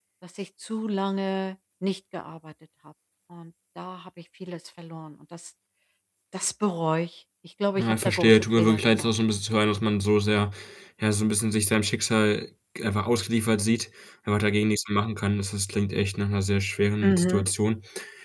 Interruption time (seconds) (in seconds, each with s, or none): 7.8 s